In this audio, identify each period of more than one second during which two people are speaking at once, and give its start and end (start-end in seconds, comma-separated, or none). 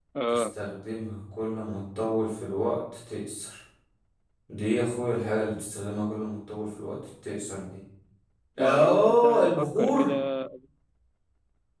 8.6-10.1